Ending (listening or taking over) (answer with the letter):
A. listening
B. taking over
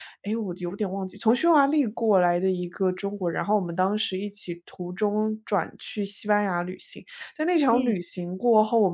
A